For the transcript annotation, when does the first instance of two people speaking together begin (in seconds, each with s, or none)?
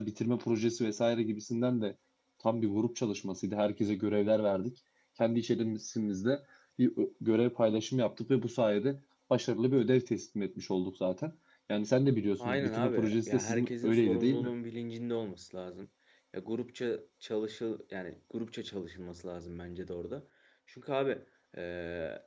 12.4 s